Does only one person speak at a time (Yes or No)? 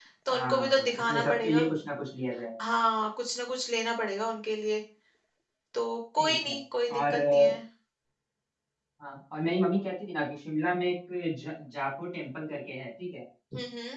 No